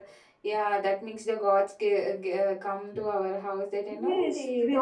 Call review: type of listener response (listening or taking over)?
taking over